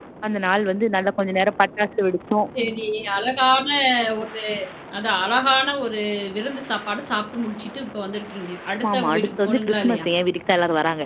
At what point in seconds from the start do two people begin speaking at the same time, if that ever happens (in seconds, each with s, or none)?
8.7 s